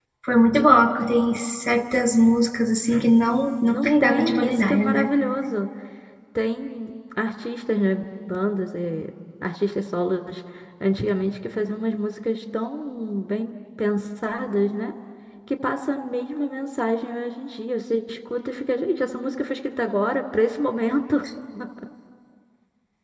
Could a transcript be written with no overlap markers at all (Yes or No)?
No